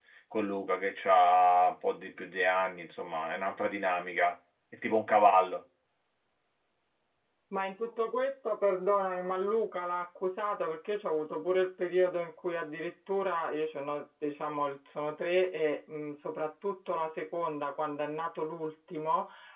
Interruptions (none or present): none